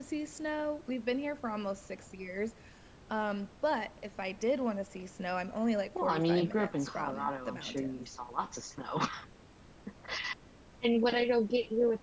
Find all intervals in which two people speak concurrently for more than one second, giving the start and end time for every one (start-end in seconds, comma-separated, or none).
6.0-8.1